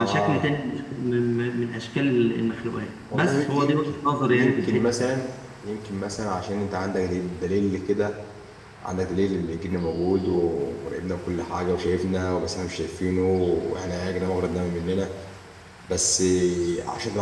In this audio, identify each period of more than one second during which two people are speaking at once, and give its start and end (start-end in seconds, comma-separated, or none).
3.1-4.9